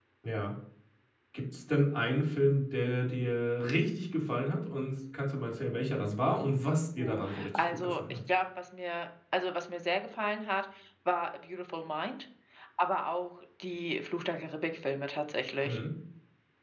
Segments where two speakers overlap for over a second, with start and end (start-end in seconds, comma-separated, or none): 7.0-8.2